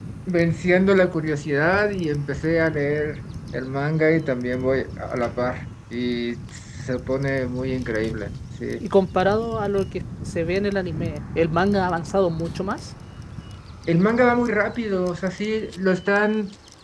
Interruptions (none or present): none